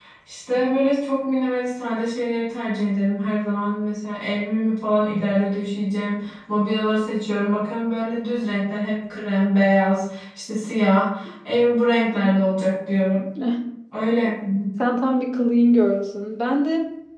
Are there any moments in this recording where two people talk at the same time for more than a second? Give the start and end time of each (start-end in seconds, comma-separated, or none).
none